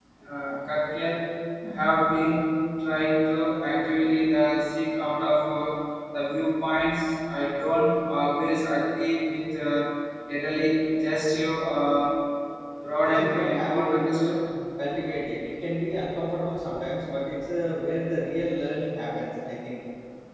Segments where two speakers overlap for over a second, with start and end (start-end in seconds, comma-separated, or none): 13.0-14.4